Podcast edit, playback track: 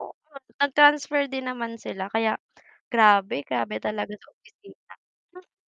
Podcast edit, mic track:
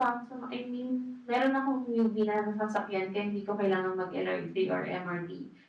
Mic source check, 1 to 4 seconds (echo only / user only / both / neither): user only